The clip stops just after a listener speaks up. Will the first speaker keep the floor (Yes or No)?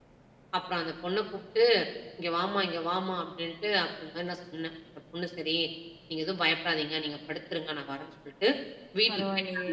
Yes